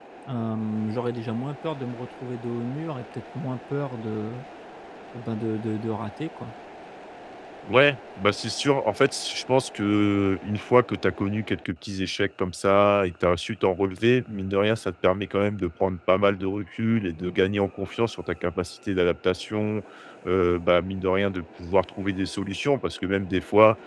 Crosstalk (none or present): none